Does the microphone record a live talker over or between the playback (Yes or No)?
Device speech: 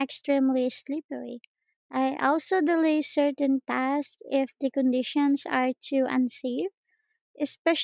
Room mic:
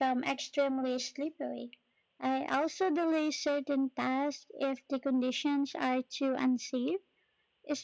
No